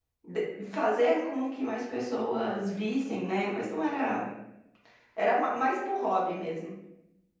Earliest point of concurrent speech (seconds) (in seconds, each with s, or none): none